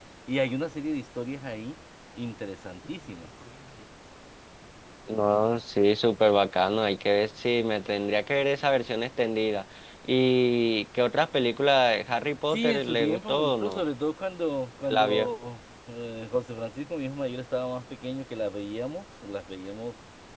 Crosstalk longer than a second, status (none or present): present